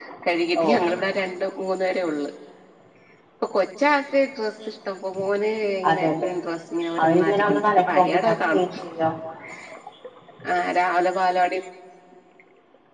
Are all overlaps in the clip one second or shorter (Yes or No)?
No